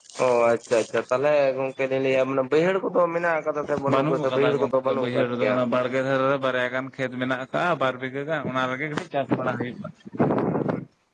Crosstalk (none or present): present